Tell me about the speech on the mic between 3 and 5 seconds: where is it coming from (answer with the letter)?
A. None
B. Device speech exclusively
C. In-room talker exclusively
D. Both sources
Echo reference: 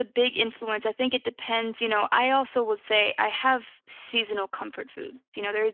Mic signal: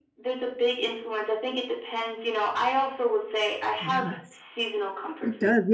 D